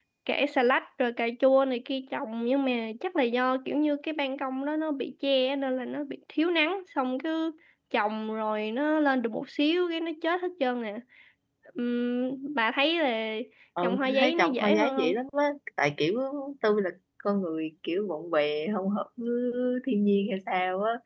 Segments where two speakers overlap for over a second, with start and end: 13.8-15.1

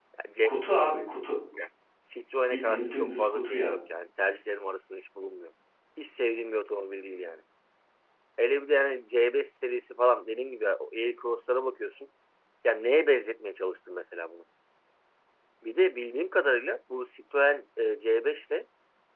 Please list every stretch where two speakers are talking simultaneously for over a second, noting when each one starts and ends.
2.5-3.8

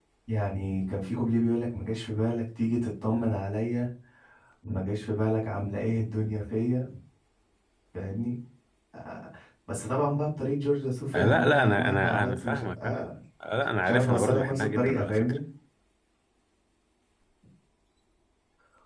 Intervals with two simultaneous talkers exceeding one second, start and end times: 11.1-13.1, 13.8-15.4

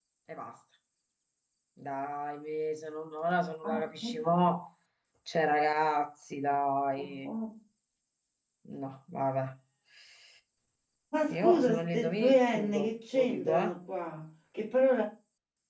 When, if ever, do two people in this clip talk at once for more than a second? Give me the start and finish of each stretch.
11.4-13.8

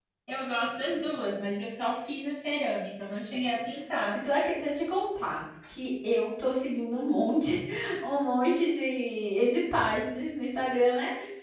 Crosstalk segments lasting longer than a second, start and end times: none

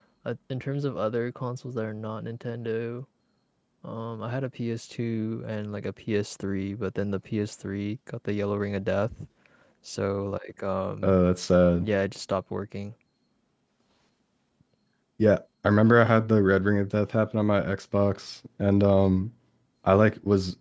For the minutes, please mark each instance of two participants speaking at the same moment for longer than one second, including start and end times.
none

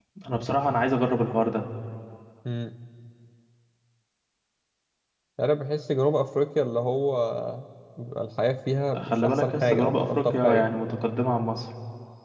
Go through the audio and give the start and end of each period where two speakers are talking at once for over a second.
9.0-10.7

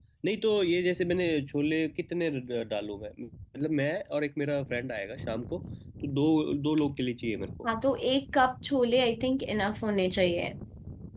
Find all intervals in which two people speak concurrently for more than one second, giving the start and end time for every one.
none

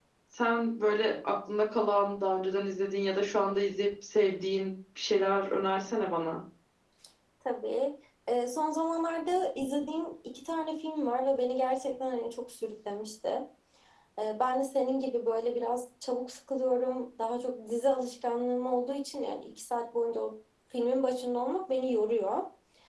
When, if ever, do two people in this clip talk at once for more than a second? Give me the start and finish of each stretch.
none

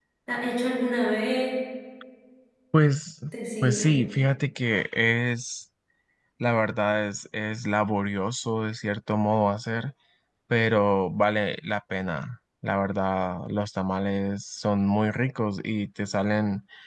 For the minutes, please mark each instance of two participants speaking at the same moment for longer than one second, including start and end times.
none

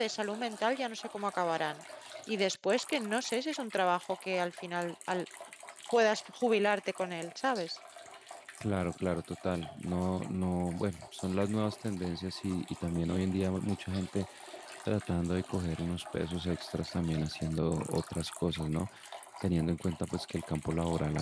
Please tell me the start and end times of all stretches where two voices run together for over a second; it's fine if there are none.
none

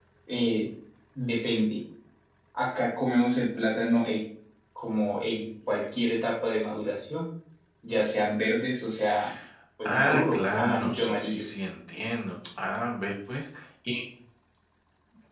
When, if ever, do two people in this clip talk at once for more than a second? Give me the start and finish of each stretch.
9.8-11.4

